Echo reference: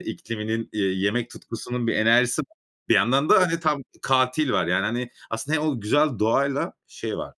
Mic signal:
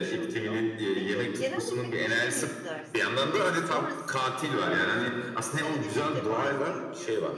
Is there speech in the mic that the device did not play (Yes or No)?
Yes